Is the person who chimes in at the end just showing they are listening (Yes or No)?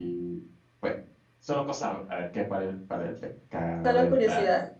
Yes